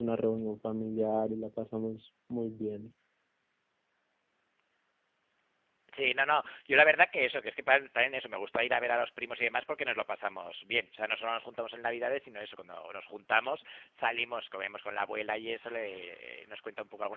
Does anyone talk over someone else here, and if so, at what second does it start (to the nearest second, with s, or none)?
none